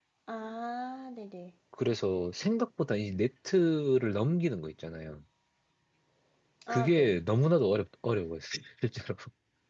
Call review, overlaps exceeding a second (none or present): none